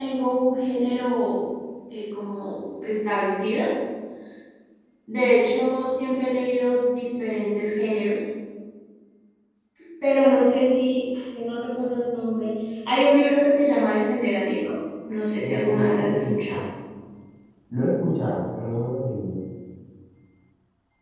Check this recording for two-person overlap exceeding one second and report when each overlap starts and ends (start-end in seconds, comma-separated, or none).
15.4-16.6